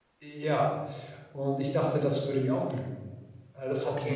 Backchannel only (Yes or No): No